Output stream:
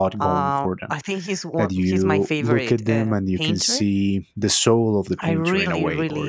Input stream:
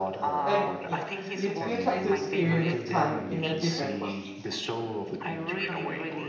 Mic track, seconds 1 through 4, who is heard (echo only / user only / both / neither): both